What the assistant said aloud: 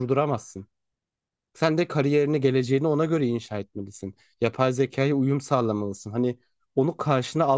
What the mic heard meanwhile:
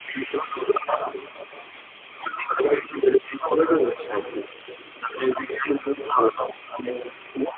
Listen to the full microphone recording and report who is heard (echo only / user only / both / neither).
echo only